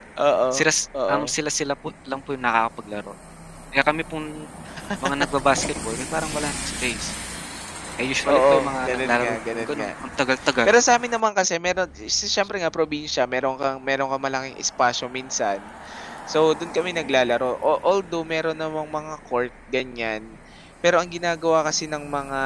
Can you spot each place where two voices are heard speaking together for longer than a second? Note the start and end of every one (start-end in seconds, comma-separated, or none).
8.3-9.9